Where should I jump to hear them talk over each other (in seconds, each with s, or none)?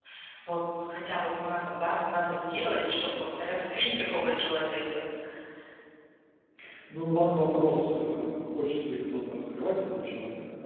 none